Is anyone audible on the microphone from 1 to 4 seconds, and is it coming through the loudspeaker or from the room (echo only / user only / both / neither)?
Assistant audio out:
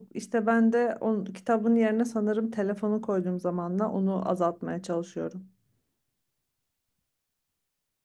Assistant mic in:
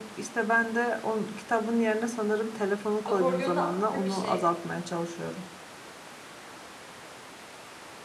both